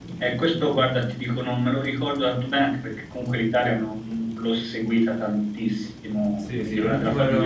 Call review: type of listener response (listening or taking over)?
taking over